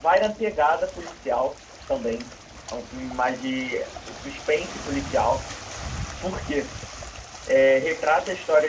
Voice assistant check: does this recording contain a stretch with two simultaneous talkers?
No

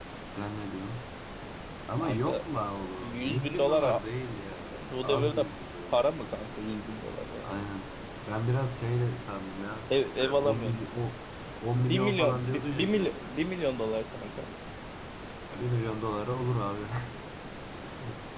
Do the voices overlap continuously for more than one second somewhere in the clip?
Yes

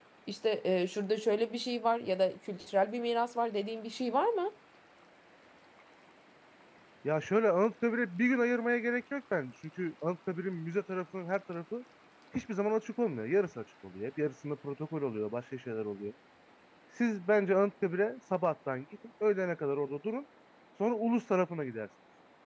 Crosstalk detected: No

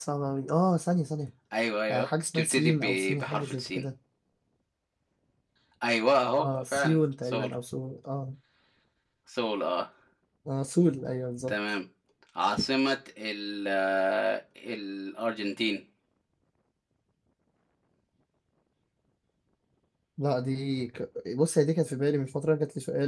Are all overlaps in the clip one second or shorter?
No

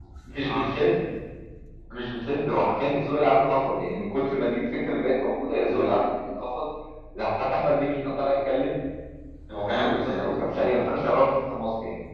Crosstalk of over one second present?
Yes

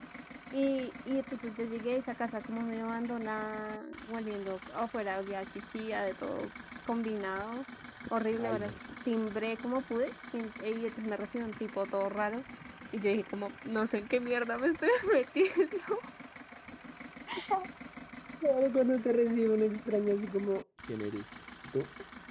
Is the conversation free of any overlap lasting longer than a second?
Yes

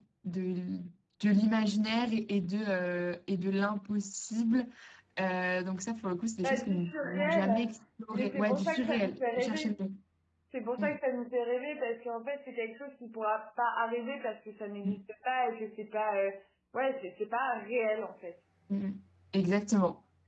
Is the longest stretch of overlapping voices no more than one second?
No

